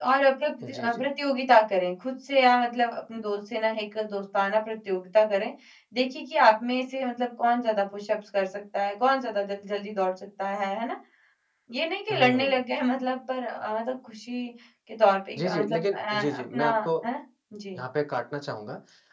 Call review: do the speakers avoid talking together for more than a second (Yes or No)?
No